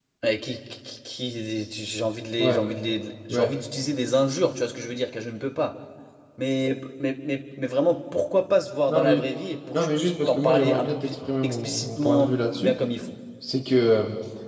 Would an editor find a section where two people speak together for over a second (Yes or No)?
Yes